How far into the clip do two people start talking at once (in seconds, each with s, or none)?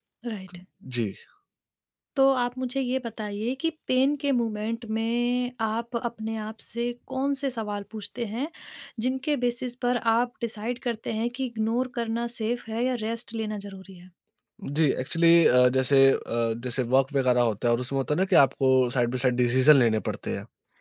none